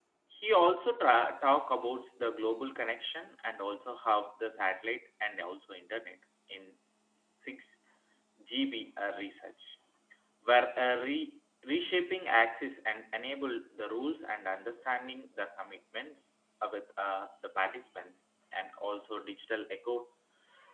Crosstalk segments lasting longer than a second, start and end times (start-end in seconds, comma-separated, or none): none